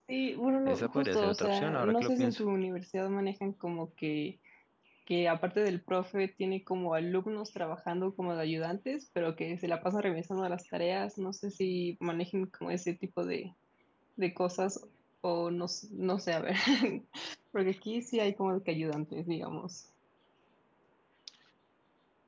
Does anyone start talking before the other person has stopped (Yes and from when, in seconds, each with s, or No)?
Yes, from 0.7 s